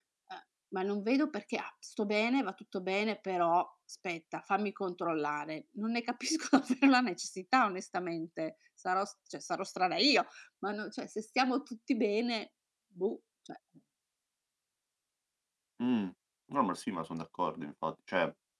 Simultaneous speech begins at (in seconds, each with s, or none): none